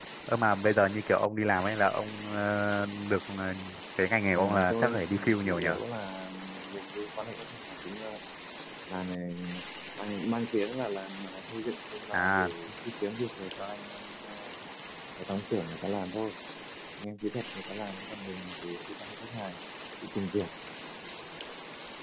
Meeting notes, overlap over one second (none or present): present